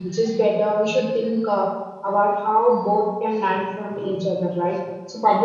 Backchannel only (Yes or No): Yes